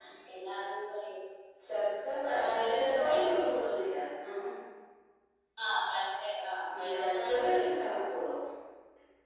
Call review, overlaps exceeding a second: present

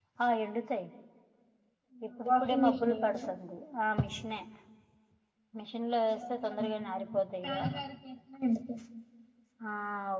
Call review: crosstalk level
present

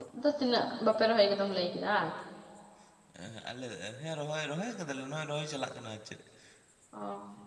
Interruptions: none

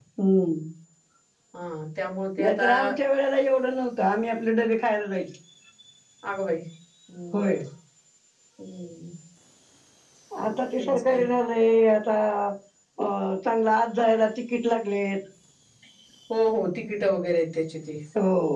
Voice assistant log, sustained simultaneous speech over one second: none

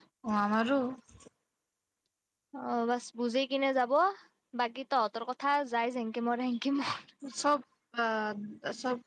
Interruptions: none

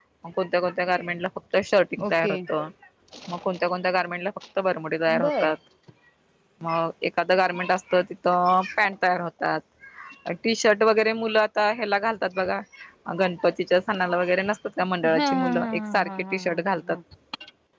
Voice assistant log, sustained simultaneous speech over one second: present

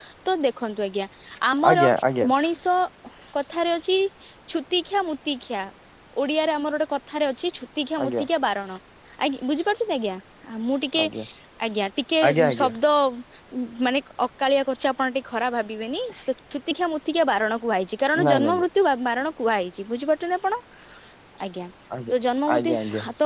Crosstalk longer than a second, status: none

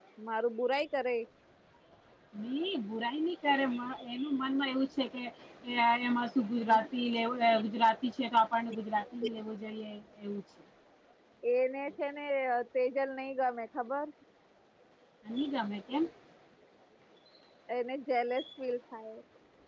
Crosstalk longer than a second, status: none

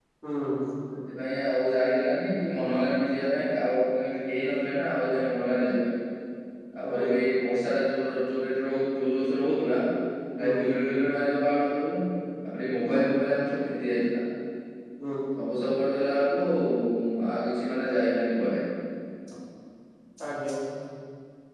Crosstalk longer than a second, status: none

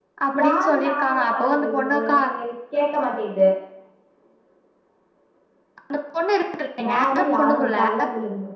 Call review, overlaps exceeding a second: present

